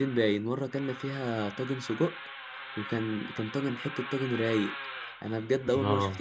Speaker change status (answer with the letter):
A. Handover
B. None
B